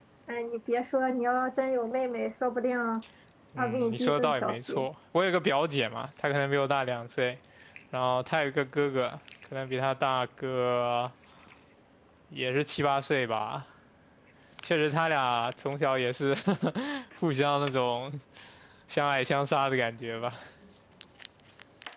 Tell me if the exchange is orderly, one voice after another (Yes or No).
No